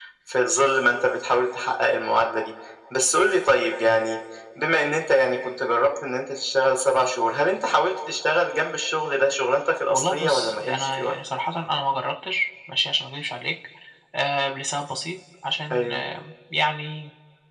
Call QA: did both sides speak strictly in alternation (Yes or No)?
No